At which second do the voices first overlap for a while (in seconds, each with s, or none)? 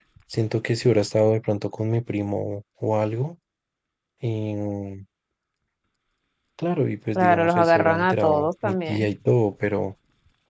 7.2 s